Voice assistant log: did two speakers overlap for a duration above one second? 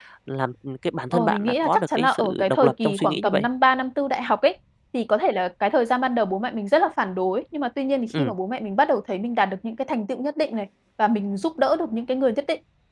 Yes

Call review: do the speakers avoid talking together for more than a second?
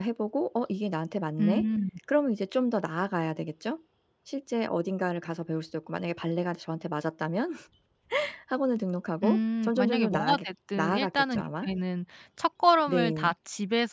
No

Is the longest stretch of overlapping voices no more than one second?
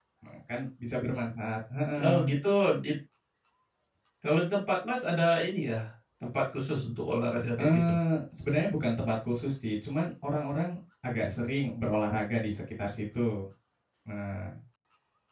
Yes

